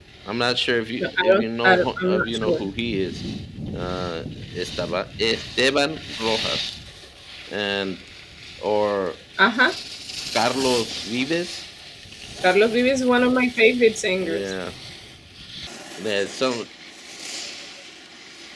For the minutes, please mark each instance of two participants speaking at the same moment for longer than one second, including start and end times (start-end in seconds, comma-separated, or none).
1.0-2.6